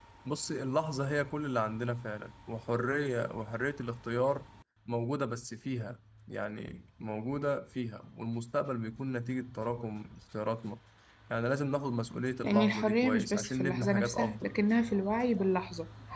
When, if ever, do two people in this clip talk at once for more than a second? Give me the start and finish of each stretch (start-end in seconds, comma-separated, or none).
12.4-14.5